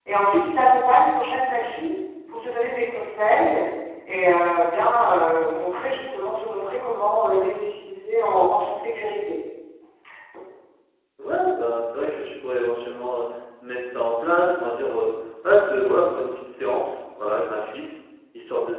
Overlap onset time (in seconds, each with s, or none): none